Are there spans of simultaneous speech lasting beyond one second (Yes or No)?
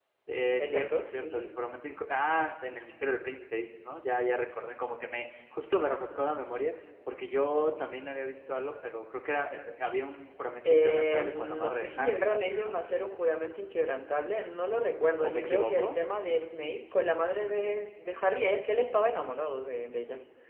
Yes